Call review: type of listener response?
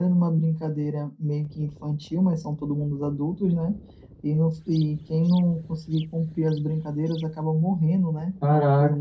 taking over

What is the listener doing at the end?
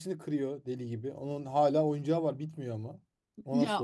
taking over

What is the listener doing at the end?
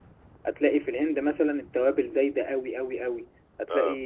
listening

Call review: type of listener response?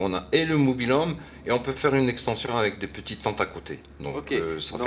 taking over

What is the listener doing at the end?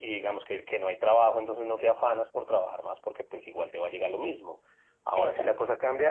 listening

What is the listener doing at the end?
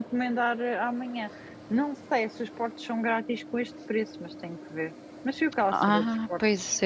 taking over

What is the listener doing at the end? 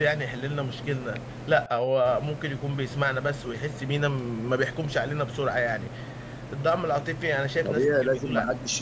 taking over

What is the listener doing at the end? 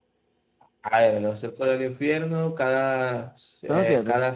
listening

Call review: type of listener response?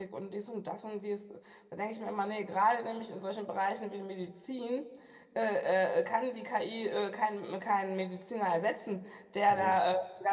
listening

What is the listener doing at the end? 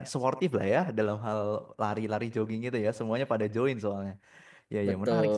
listening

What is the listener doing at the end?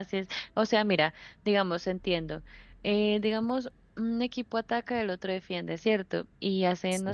listening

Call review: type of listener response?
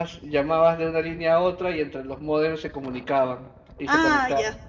taking over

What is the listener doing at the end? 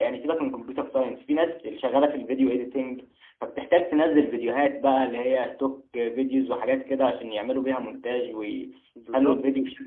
listening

